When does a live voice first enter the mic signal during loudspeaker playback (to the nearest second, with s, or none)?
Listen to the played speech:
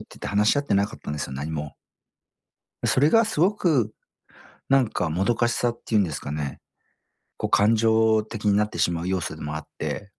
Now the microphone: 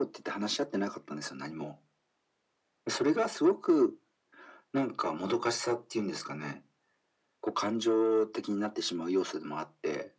none